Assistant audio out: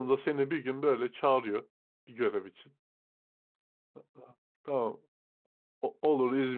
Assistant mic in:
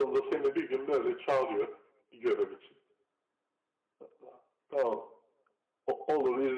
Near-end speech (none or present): none